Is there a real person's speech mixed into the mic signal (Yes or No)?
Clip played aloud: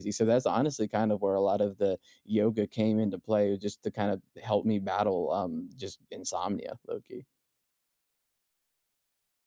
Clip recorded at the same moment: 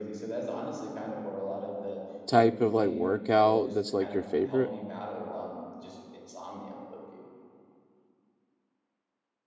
Yes